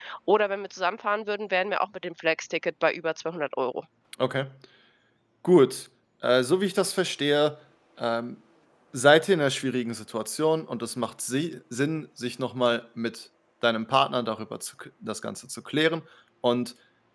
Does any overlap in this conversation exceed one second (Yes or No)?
No